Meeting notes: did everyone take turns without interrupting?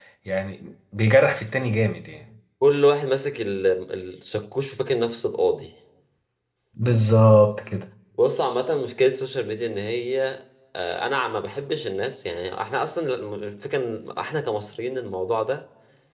Yes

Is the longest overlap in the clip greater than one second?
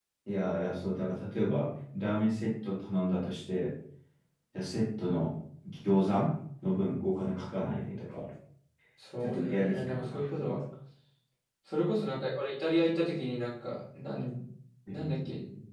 Yes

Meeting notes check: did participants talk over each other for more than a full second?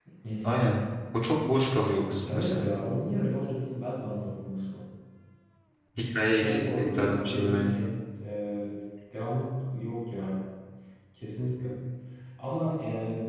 Yes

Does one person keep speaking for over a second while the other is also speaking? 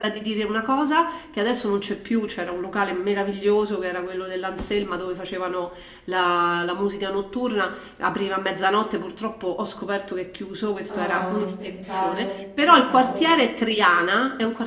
Yes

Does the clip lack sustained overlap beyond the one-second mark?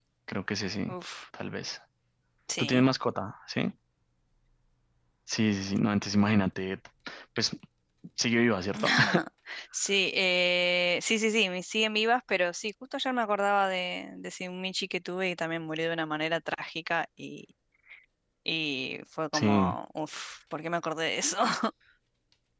Yes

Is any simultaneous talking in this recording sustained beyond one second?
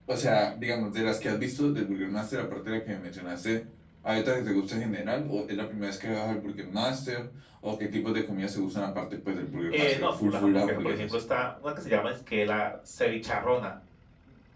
Yes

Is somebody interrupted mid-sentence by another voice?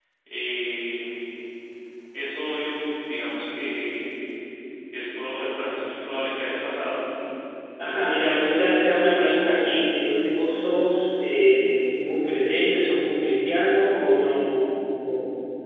Yes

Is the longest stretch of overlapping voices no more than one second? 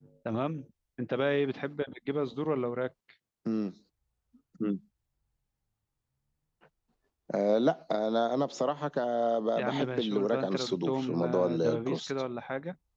No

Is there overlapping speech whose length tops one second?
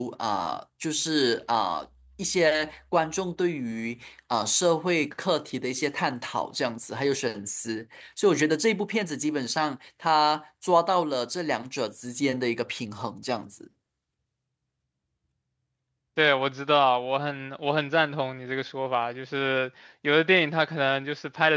No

